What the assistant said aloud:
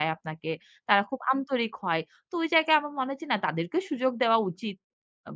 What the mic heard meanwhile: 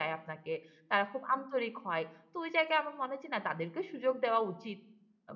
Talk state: echo only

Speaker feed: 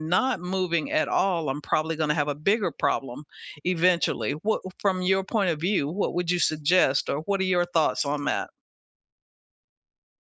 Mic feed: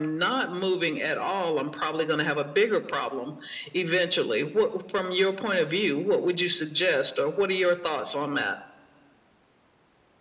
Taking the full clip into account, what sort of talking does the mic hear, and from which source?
echo only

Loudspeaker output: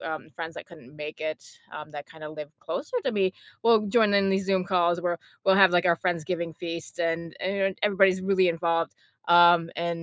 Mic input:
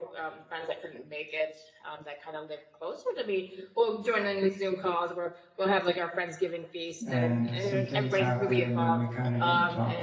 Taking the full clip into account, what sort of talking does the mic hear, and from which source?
both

